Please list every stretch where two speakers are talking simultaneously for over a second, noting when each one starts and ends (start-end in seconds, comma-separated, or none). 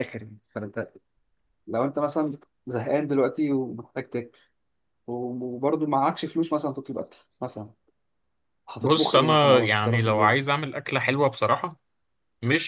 8.8-10.3